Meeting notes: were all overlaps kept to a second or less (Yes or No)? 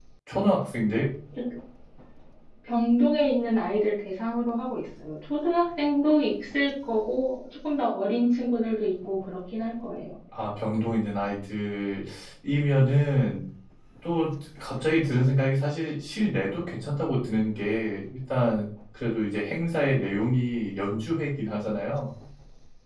Yes